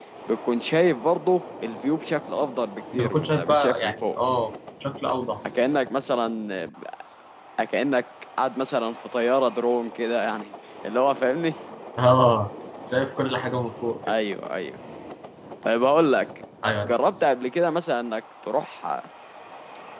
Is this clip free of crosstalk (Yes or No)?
No